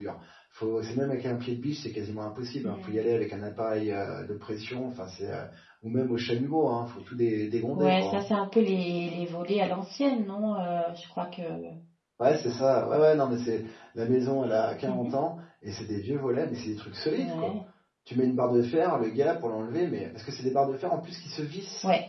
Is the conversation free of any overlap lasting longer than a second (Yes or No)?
Yes